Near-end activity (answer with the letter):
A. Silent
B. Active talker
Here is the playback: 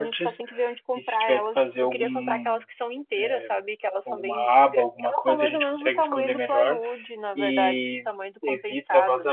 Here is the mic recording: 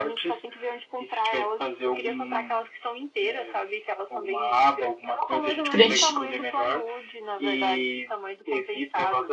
B